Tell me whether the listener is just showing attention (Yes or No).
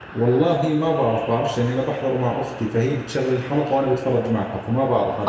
No